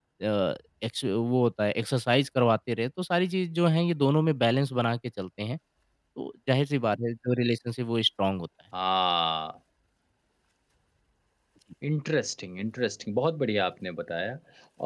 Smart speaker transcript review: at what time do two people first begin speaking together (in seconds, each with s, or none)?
none